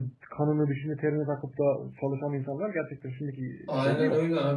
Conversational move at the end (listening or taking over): taking over